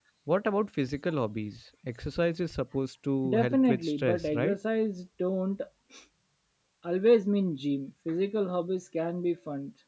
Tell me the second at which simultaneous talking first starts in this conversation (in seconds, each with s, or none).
3.2 s